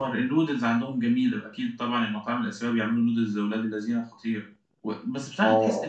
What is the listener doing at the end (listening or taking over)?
listening